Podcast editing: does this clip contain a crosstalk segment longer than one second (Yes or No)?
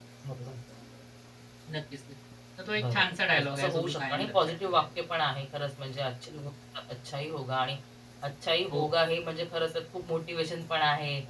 Yes